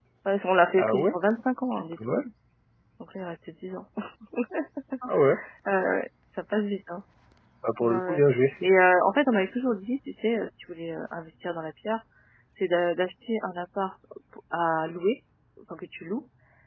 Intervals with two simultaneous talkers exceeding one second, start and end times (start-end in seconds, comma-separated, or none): none